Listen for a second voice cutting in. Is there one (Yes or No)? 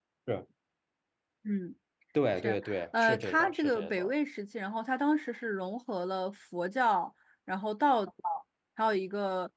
Yes